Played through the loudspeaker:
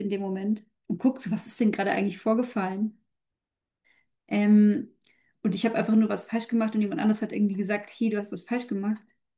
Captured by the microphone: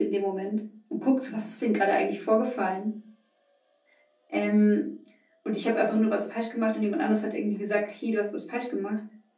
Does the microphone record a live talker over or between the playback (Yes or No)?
No